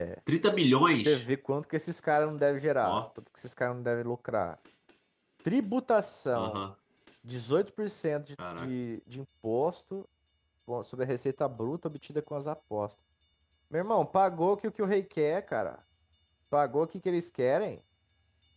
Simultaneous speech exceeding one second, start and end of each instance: none

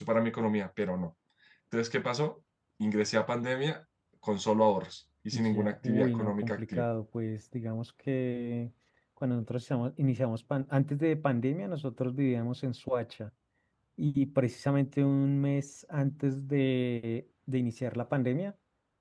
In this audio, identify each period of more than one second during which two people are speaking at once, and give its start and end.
5.3-6.8

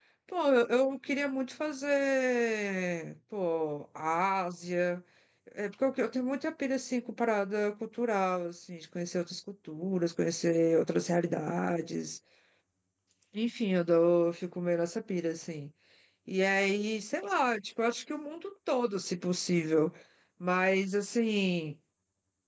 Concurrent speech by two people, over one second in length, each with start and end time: none

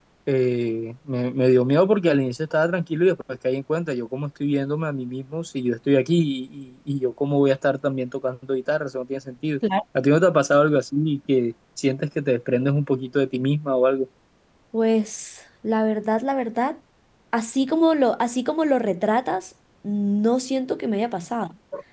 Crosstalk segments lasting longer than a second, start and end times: none

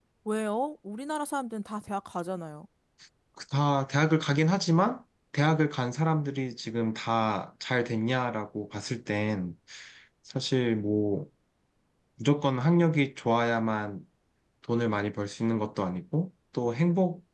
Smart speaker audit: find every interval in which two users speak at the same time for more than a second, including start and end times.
none

